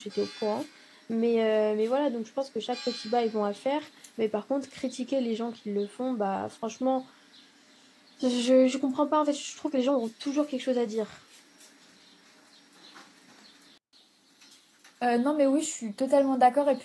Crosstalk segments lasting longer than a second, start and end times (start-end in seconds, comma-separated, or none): none